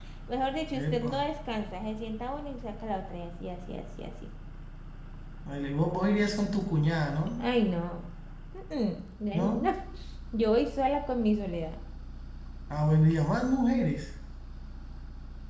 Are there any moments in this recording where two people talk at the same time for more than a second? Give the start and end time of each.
none

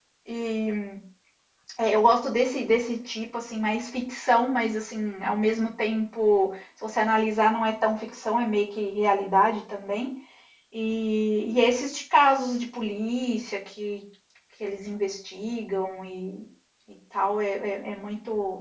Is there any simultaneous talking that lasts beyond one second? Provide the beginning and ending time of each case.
none

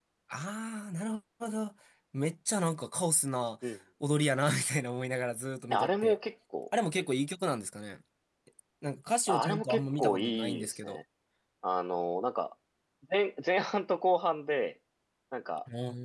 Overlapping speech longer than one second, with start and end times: 9.3-11.0

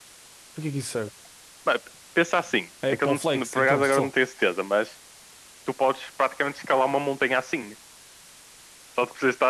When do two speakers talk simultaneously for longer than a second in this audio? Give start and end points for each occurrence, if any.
2.9-4.1

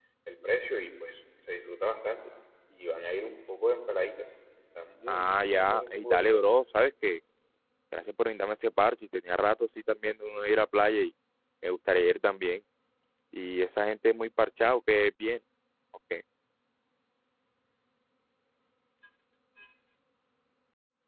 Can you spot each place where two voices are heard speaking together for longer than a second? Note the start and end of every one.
5.1-6.4

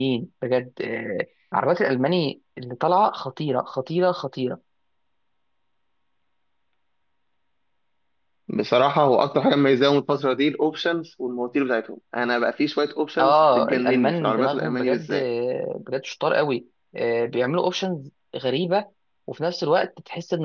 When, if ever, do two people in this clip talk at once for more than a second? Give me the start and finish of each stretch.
13.2-15.2

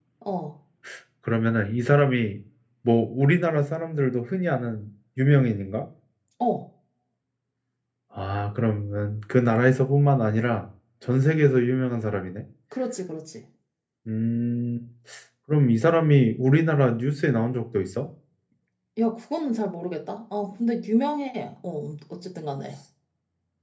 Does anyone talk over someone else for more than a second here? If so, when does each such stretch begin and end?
none

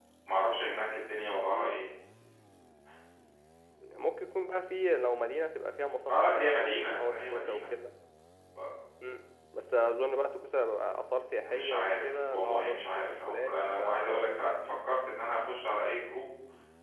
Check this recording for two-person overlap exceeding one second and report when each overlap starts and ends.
6.1-7.6, 11.4-13.8

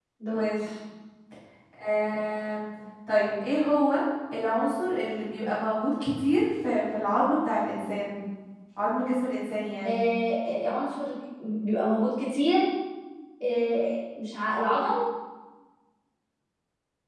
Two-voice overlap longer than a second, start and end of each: none

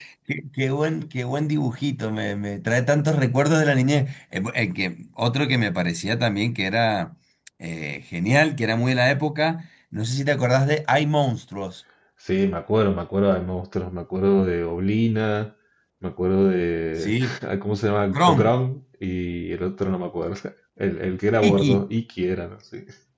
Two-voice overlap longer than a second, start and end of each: none

